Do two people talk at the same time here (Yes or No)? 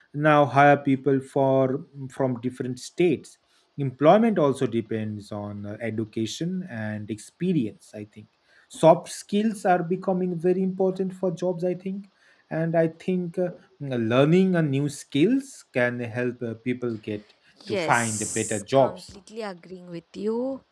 Yes